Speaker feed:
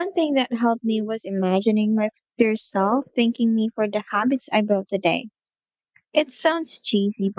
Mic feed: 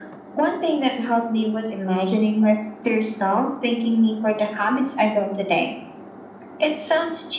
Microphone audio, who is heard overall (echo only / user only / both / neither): echo only